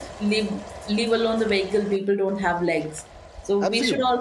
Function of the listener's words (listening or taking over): listening